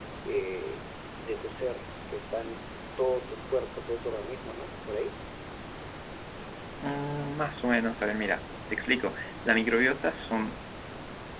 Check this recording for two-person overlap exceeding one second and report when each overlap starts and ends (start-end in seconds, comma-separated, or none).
none